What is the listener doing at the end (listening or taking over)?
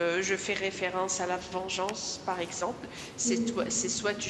listening